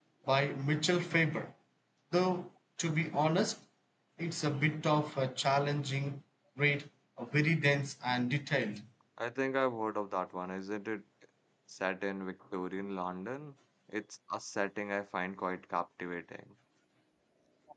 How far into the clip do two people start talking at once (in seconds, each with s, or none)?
none